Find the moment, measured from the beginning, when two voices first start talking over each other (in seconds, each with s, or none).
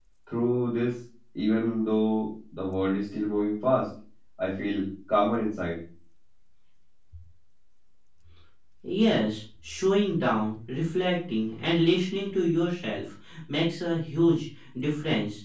none